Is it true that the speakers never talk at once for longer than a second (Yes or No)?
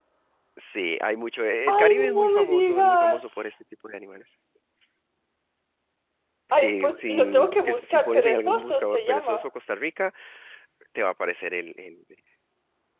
No